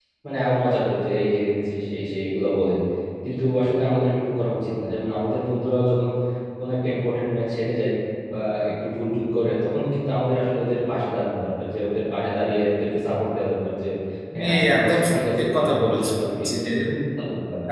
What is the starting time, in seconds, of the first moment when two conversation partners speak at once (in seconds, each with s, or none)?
14.3 s